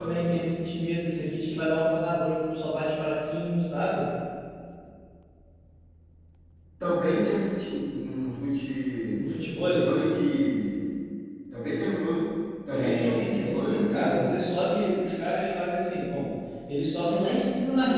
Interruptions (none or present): present